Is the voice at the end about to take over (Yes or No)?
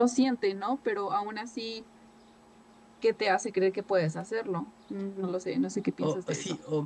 Yes